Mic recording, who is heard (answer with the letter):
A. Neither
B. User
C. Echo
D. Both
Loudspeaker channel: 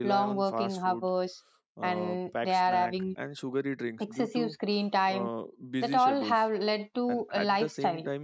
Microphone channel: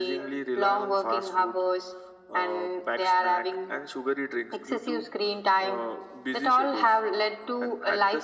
C